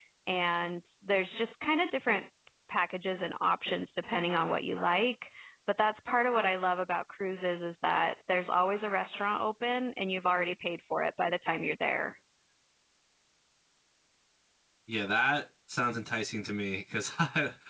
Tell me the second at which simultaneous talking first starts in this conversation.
none

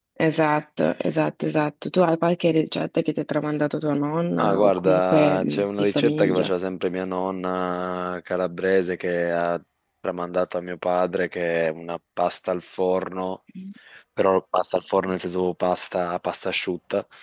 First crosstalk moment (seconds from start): 4 s

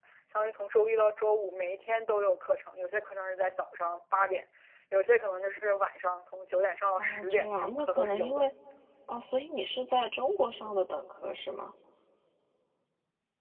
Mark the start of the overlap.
7 s

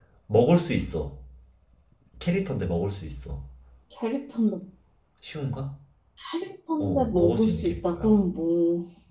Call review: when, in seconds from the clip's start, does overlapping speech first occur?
7 s

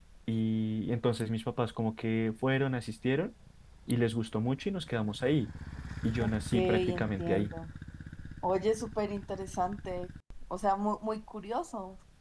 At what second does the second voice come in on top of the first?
6 s

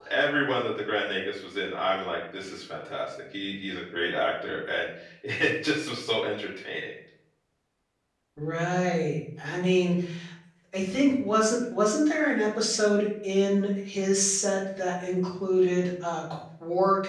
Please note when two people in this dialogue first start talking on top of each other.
none

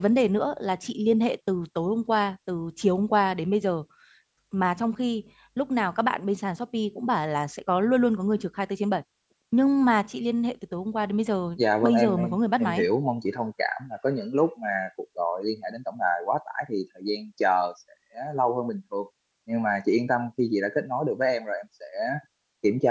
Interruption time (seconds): 12 s

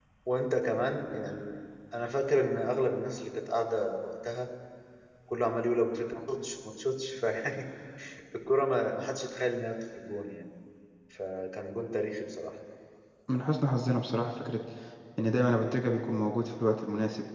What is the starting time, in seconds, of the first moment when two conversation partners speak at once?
none

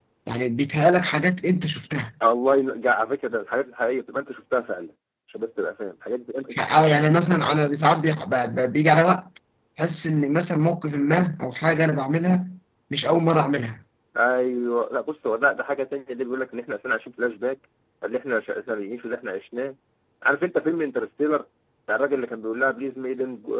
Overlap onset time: none

